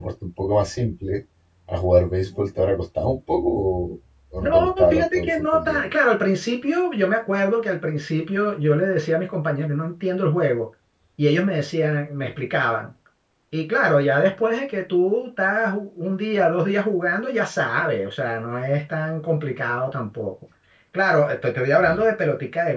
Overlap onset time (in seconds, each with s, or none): 4.4 s